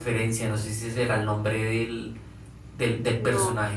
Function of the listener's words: listening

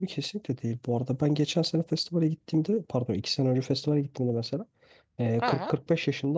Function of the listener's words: listening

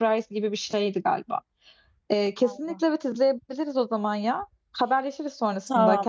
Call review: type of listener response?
taking over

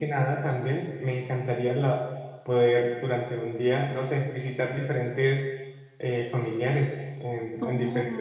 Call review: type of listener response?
taking over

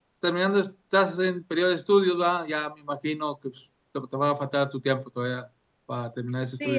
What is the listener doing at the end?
taking over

